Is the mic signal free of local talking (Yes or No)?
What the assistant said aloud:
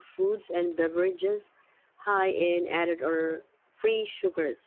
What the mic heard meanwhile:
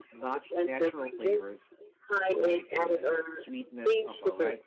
No